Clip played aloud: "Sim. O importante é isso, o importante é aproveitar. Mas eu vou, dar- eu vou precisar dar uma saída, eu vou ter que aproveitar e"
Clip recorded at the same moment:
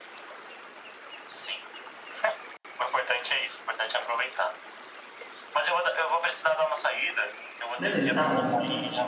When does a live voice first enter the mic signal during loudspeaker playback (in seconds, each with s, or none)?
7.8 s